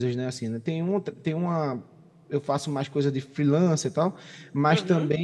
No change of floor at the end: Yes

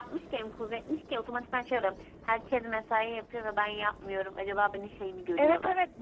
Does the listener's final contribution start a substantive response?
Yes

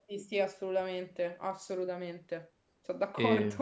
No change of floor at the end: No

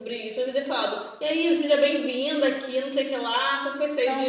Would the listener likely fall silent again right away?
Yes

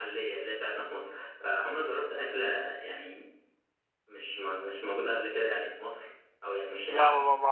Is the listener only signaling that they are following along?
No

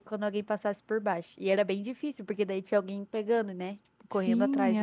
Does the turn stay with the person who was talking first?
No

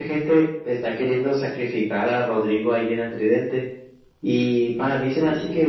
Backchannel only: Yes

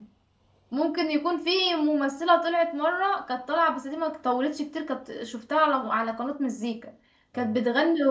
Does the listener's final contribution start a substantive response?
No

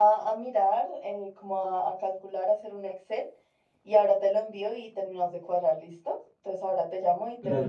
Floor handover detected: Yes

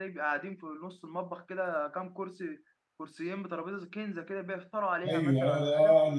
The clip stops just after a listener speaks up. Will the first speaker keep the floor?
No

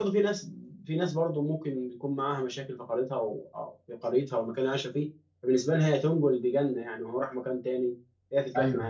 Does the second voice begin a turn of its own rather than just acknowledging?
No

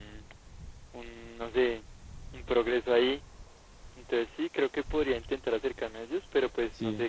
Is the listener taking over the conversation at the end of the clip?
Yes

